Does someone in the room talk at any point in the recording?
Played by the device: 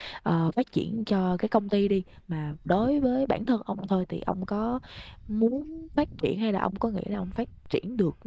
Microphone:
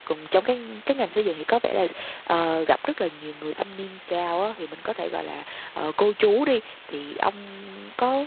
Yes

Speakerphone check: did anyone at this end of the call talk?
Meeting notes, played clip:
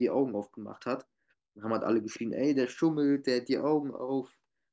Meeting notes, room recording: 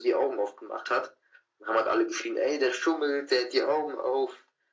No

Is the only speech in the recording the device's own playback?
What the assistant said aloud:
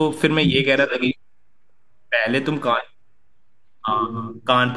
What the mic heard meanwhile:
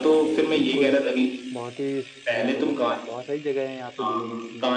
No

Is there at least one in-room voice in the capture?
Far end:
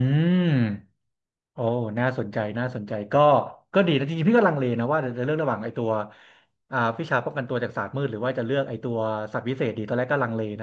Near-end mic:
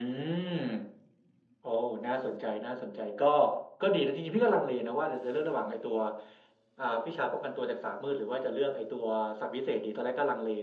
No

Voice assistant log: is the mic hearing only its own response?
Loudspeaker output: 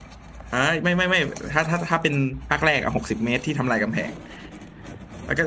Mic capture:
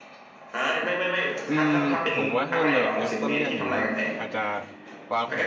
No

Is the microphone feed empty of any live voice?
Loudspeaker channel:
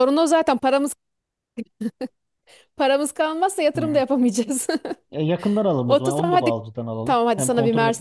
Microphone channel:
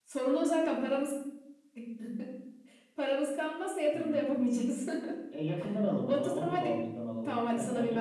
Yes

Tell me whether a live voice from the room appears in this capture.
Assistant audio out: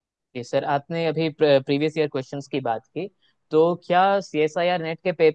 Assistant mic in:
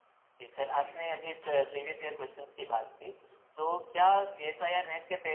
Yes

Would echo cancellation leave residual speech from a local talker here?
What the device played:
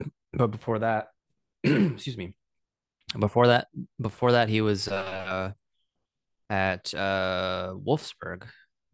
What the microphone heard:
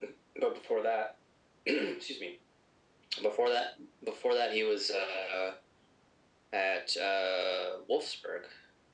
No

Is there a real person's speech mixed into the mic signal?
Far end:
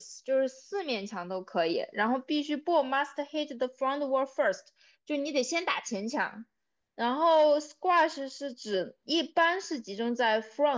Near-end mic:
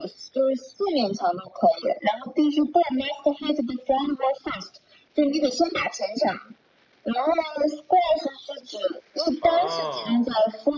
Yes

